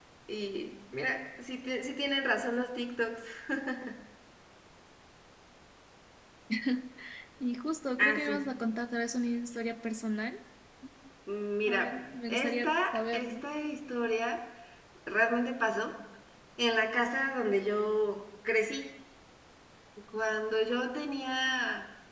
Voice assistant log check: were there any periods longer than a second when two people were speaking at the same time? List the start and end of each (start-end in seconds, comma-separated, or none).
11.7-13.4